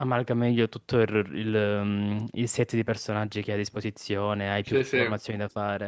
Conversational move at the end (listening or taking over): listening